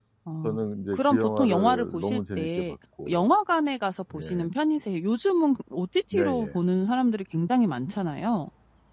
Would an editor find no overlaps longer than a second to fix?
No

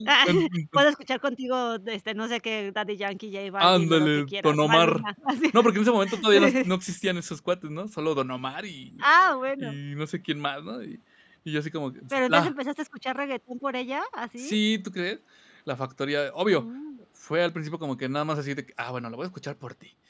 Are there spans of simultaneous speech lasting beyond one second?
Yes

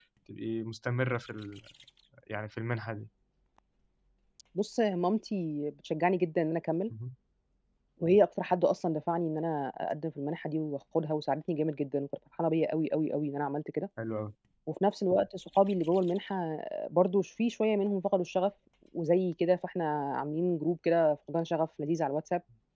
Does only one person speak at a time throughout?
Yes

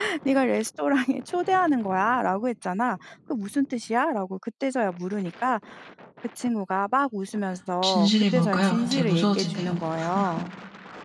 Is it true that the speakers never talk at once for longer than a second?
No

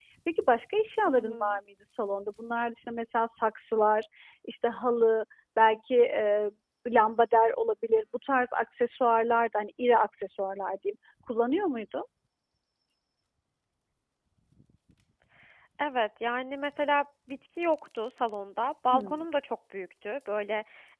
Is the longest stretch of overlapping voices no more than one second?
Yes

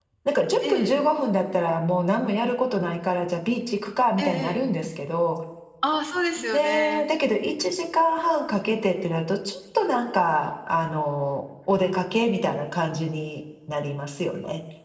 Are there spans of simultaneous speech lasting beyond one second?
No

